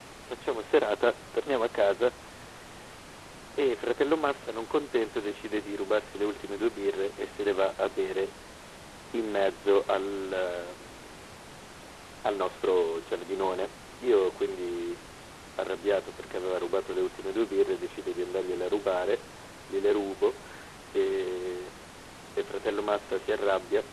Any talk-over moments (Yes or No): No